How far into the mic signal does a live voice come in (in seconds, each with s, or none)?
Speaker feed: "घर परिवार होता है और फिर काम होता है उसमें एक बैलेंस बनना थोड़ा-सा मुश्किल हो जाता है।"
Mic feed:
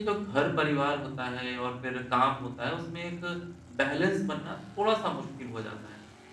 none